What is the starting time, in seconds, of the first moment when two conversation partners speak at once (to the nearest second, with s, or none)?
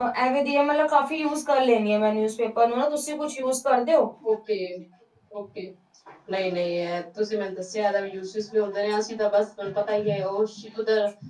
none